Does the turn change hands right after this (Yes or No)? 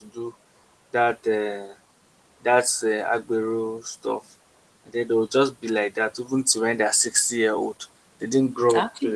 Yes